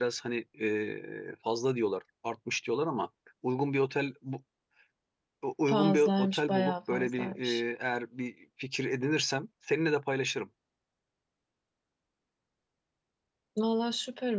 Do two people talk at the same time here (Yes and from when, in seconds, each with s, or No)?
Yes, from 5.7 s